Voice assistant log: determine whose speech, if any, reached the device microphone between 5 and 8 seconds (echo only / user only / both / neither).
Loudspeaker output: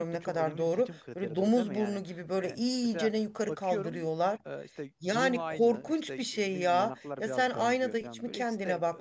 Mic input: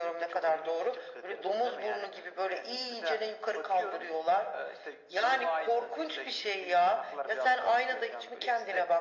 echo only